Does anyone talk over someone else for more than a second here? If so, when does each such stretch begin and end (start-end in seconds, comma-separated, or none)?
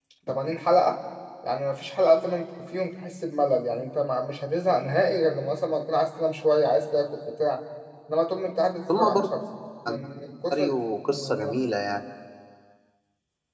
none